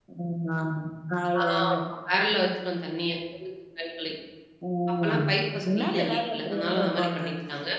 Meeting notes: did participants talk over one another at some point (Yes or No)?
Yes